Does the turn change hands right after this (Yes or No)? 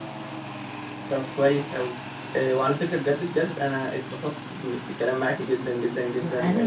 Yes